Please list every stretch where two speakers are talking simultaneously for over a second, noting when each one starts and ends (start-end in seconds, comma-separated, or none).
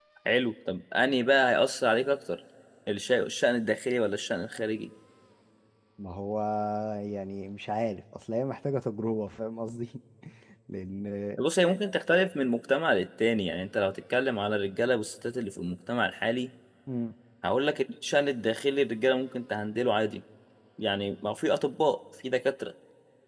none